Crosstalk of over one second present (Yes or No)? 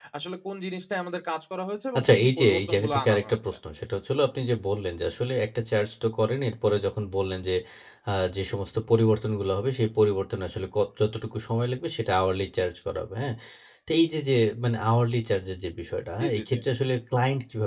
Yes